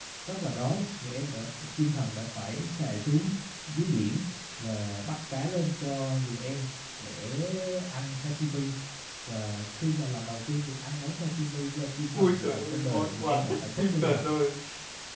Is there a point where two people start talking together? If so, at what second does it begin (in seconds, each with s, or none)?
12.1 s